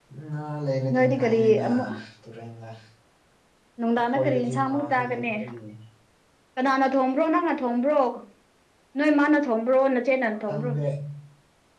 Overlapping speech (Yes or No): Yes